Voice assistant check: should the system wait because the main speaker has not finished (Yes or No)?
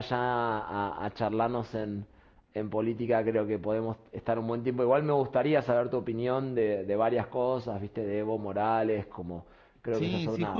No